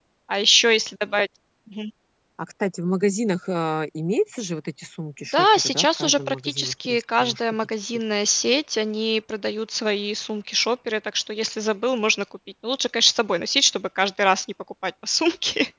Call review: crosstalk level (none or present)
present